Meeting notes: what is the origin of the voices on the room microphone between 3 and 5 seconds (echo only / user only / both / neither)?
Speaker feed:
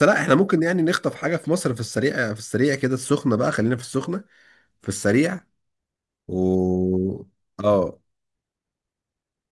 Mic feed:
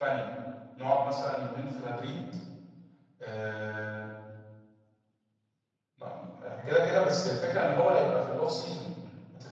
user only